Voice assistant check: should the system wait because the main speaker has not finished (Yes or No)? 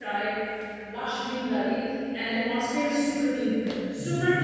Yes